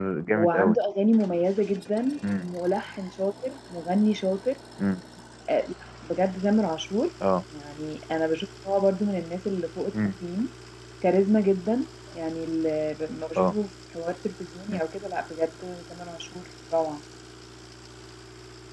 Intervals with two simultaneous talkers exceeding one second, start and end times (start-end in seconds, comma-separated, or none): none